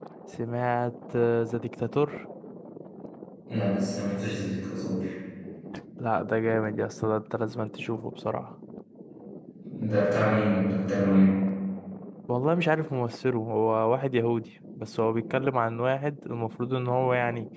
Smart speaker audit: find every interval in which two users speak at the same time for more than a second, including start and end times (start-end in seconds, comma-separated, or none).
none